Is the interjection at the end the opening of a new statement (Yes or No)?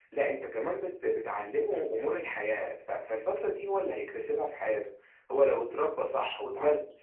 No